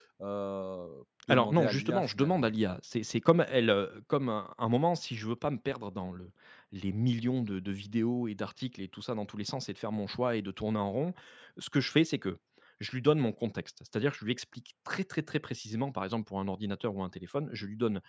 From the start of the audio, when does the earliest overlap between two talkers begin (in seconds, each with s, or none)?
1.3 s